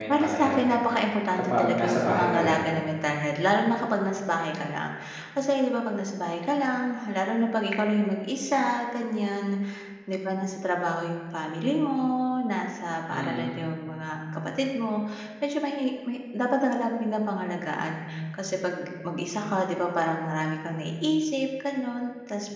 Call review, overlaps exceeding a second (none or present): present